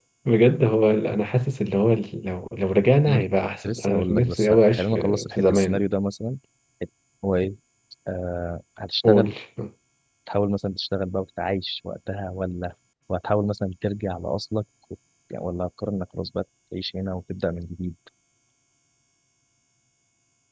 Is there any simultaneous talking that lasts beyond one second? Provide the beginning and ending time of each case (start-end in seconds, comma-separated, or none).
3.1-5.8